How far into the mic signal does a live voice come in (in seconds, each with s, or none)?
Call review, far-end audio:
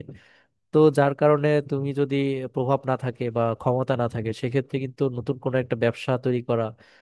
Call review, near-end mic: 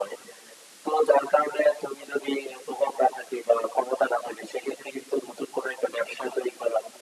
none